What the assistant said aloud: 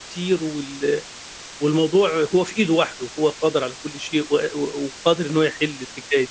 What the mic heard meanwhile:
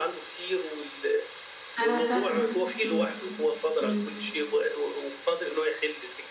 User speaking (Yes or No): Yes